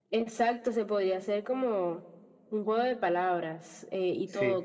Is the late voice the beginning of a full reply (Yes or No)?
No